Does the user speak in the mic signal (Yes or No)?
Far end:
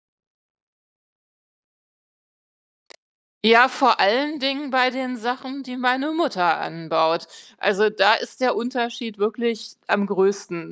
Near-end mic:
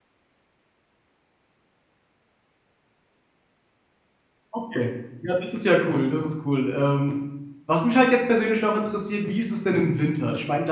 Yes